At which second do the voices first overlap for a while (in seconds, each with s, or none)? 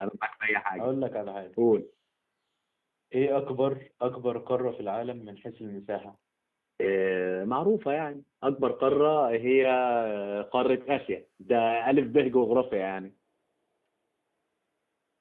none